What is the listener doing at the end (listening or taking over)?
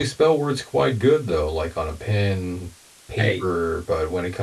listening